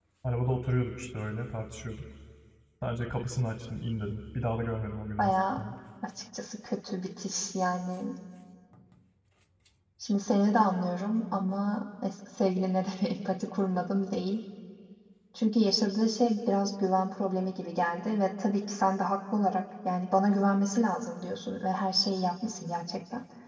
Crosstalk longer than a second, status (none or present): none